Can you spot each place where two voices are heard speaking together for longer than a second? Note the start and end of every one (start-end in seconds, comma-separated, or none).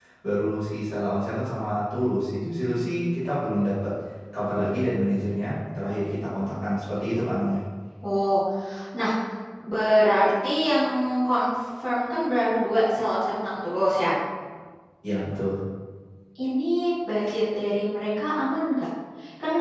none